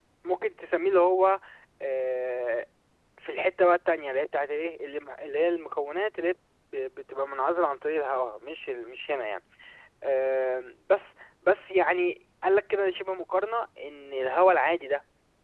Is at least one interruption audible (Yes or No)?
No